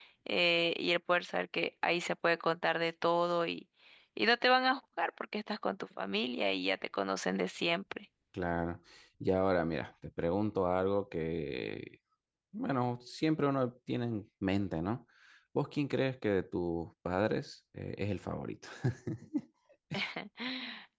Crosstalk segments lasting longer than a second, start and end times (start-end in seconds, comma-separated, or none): none